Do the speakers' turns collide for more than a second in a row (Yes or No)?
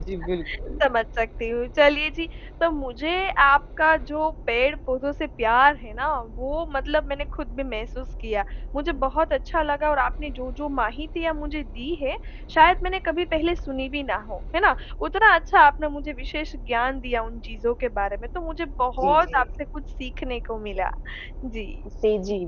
No